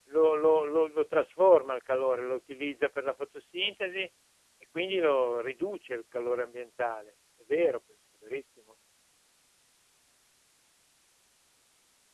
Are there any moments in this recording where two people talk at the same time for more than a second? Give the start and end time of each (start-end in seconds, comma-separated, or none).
none